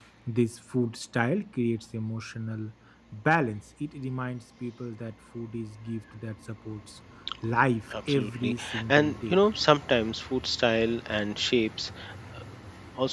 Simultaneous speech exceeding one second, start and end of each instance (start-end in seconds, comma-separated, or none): 8.1-9.4